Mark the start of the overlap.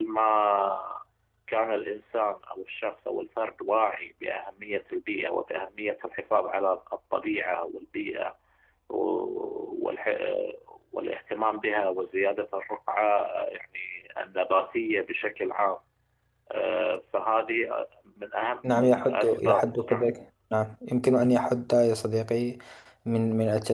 18.6 s

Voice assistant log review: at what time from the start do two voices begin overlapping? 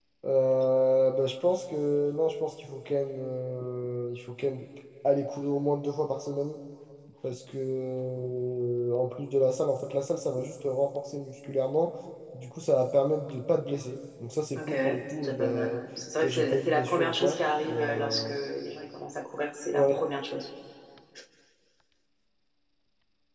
14.6 s

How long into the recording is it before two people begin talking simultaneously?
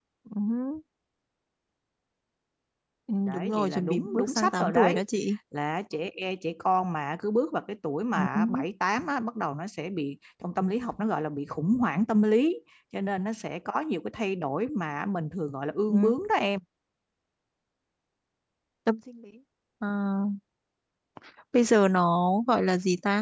3.3 s

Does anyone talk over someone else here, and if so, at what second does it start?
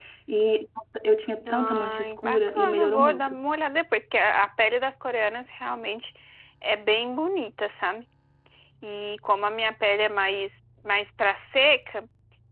1.5 s

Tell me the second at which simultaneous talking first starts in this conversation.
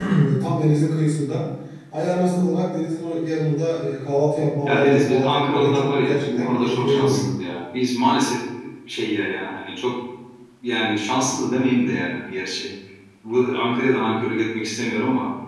4.7 s

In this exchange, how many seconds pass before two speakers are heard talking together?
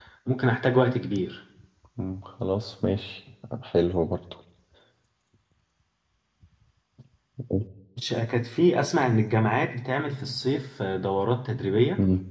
none

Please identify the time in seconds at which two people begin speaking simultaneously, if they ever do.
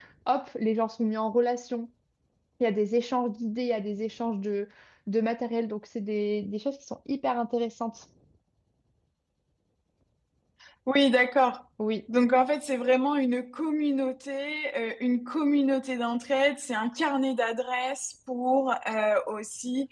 none

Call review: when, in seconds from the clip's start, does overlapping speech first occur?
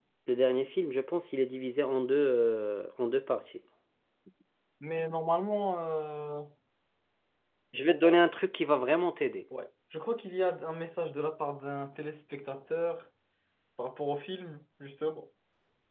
none

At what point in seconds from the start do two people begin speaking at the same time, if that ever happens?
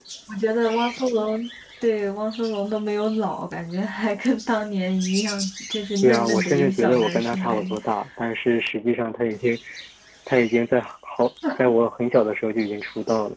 6.0 s

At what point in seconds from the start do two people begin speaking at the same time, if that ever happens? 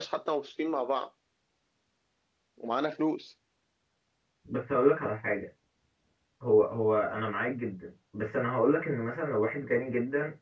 none

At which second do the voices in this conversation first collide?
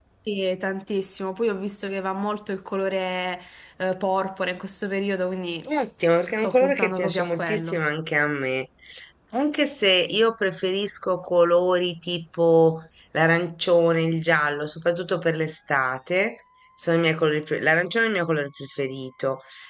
6.2 s

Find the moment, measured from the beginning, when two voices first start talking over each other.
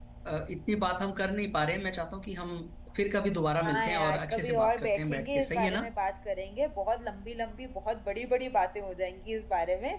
3.7 s

